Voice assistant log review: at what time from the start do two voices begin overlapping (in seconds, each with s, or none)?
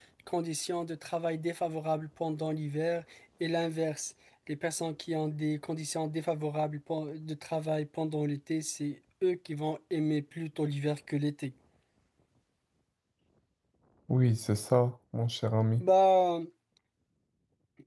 none